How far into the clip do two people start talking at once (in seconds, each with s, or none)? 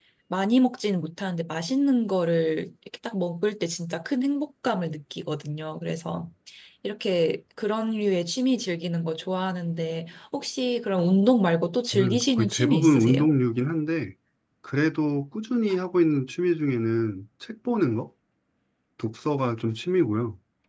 11.9 s